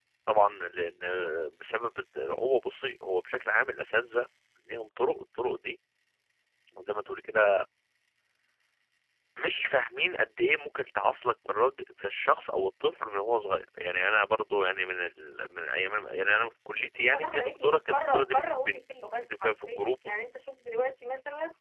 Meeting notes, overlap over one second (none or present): present